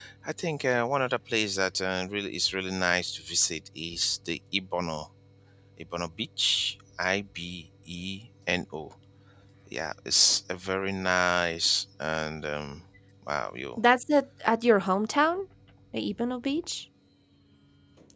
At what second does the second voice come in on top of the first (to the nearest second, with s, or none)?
none